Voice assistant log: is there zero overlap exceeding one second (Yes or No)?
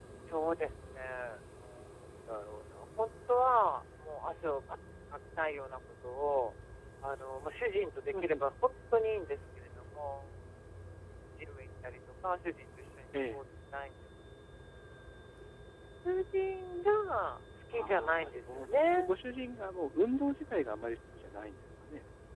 No